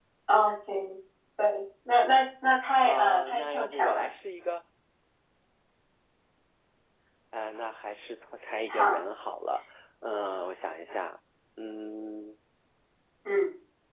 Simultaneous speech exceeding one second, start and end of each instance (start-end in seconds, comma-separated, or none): 2.8-4.1